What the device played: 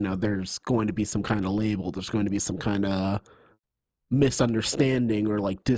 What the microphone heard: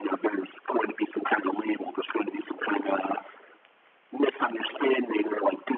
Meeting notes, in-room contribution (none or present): none